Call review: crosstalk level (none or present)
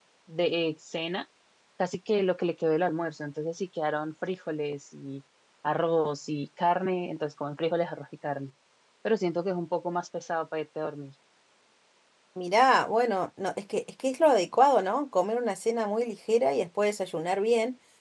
none